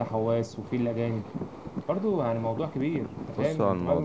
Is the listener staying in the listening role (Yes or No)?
No